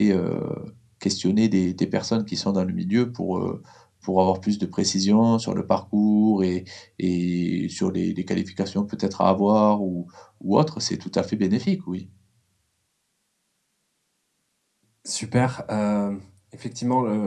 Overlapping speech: No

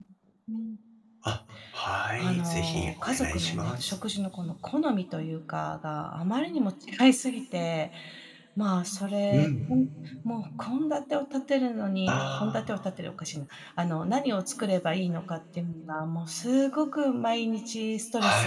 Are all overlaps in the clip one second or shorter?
No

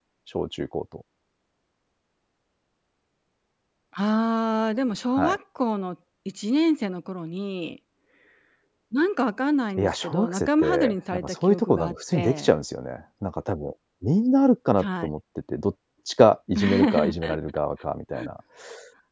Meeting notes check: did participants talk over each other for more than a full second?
Yes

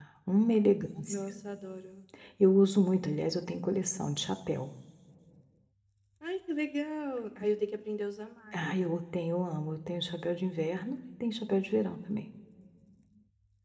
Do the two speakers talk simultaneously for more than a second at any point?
No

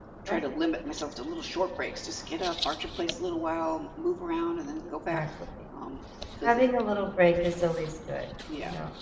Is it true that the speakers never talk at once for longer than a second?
Yes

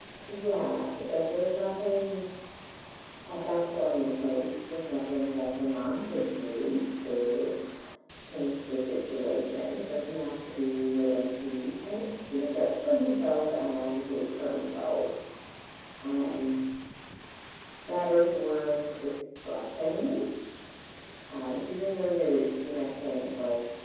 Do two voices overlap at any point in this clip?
No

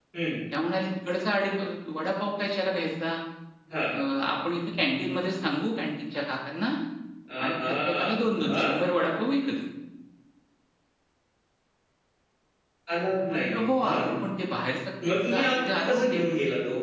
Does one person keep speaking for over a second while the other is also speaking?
Yes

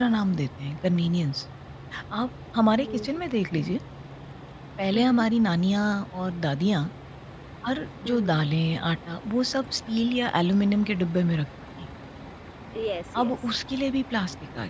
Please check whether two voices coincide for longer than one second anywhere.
No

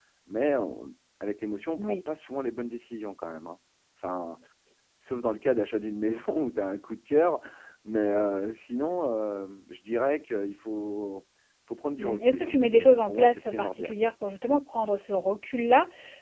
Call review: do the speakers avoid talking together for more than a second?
No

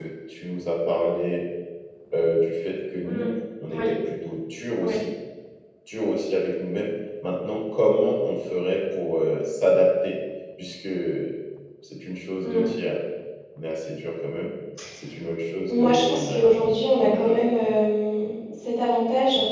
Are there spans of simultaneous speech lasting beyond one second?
Yes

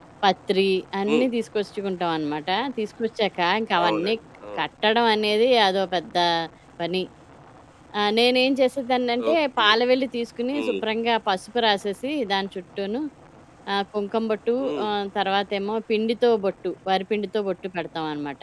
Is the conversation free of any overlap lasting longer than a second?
Yes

